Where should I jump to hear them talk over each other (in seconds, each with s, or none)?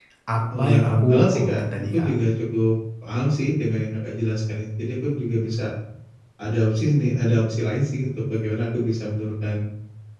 0.6 s